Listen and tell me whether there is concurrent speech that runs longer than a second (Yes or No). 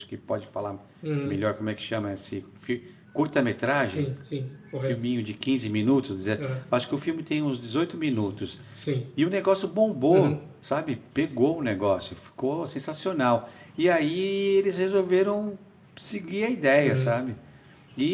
No